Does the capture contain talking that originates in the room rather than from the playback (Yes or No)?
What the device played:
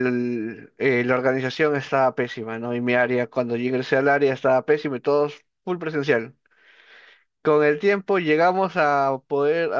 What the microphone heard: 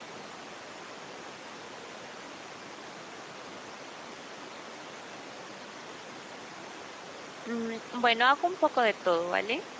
Yes